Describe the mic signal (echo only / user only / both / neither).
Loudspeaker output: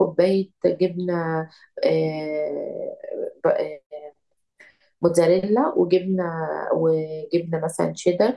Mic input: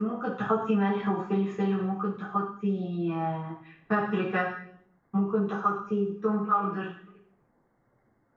user only